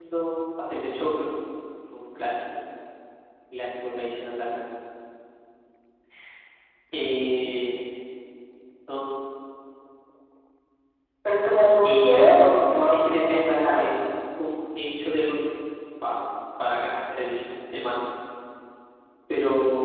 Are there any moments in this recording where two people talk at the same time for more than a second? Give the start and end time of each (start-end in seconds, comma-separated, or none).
11.8-13.9